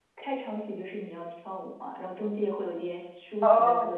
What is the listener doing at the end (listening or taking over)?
taking over